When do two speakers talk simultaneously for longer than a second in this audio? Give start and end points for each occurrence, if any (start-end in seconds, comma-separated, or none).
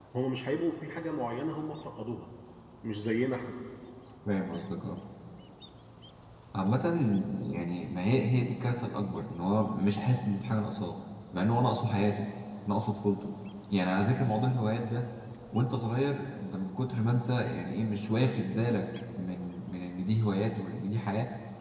none